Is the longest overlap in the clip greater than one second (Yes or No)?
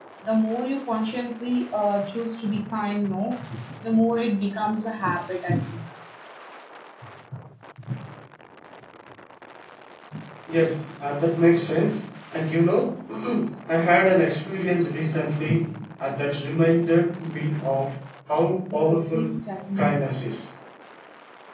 No